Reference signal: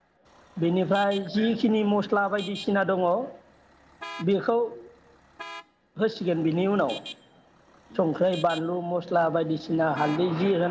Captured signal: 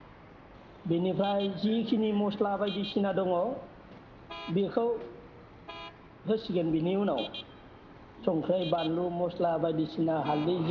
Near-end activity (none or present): none